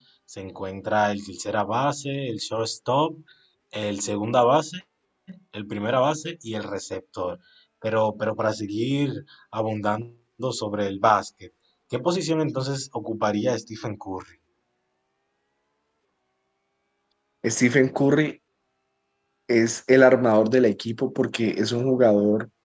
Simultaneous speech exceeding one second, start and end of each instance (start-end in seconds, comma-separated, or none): none